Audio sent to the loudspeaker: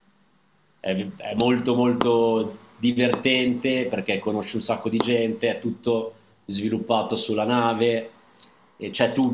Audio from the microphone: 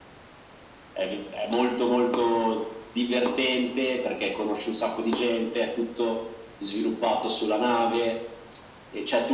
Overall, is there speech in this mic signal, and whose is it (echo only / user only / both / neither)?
echo only